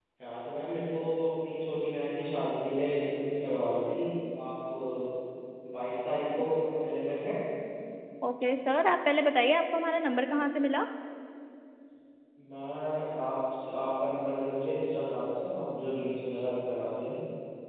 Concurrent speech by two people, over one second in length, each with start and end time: none

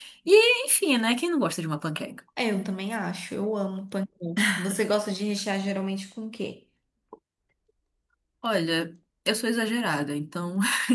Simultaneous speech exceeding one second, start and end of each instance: none

